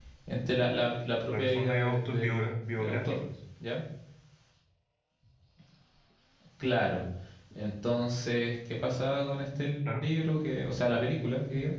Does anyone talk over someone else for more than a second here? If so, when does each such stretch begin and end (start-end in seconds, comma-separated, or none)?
1.3-3.2